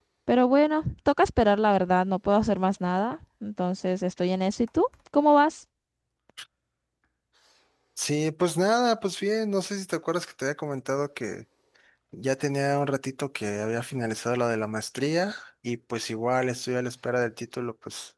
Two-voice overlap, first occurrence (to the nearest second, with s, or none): none